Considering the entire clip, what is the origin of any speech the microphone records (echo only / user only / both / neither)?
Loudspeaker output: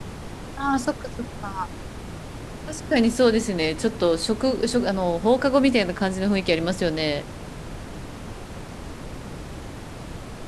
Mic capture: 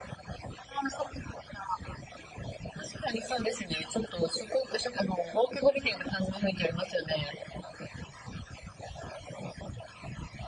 echo only